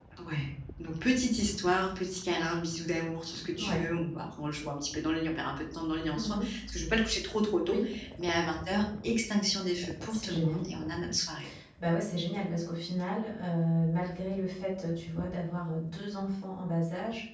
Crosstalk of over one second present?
No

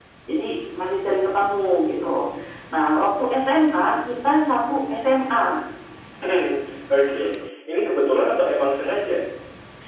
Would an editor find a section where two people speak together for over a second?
No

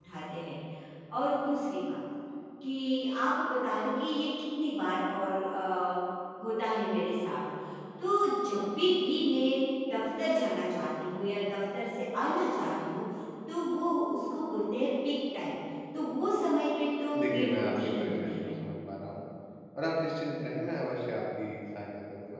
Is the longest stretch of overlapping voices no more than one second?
No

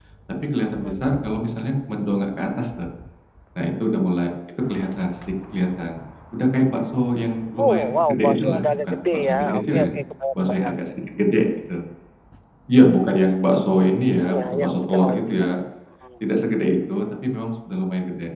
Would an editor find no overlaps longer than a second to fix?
No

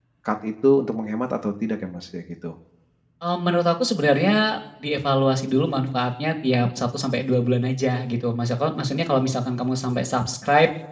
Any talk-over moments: No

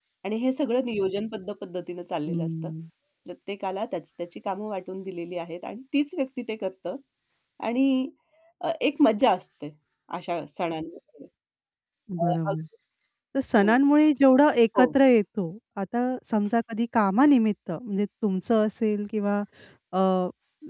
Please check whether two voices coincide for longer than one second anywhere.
No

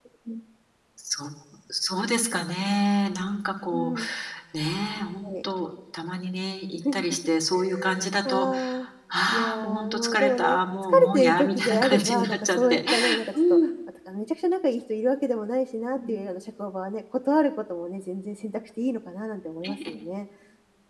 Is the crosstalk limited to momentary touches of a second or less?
No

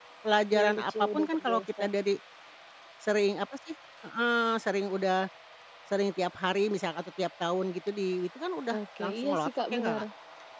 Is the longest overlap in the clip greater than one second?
Yes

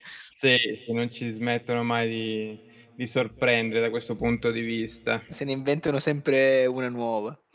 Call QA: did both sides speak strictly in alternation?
Yes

